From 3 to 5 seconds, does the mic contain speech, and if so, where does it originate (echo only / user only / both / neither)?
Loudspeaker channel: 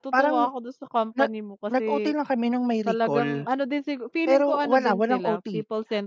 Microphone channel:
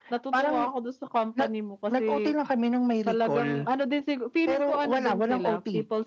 echo only